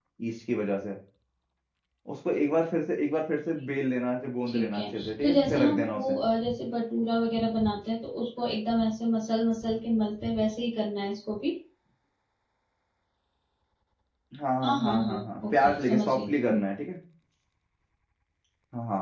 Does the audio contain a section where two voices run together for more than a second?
Yes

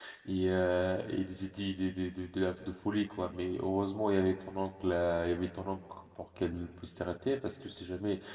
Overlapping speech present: No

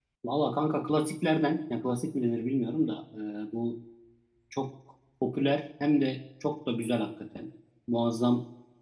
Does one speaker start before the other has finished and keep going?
No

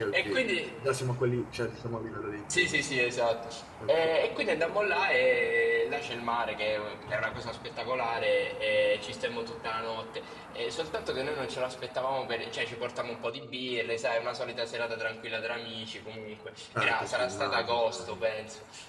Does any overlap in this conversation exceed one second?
Yes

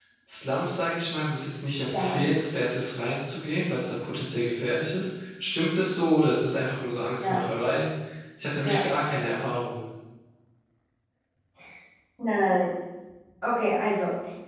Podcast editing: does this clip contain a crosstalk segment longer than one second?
No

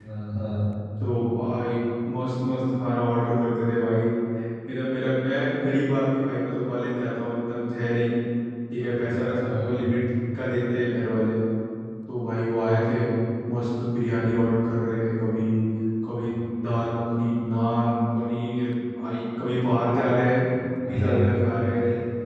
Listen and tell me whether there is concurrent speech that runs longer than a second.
No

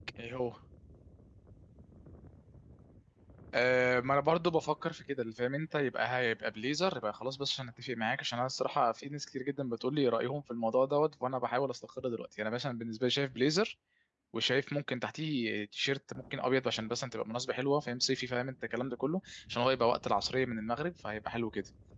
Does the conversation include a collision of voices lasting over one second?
No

